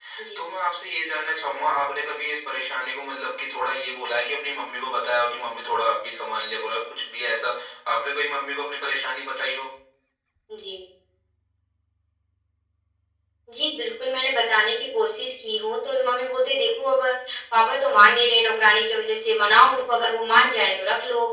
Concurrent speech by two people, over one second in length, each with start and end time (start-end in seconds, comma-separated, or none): none